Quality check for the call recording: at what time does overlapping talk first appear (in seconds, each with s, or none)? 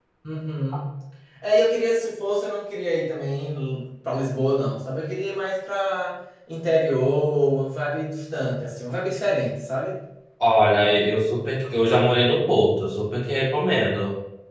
none